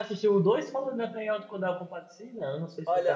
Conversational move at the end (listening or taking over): taking over